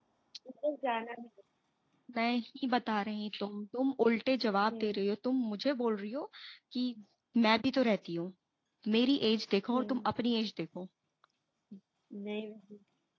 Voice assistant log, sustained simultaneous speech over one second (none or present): none